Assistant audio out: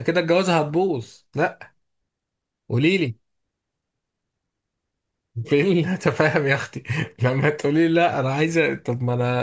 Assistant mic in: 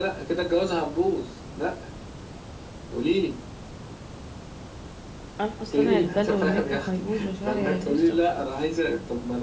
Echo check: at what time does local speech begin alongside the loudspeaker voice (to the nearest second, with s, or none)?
5 s